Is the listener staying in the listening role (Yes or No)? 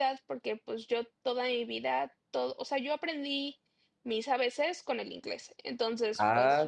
No